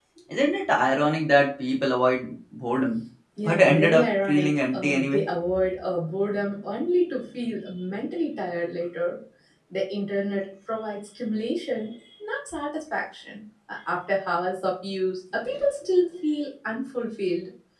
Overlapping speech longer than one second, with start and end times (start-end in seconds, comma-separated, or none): 3.5-5.3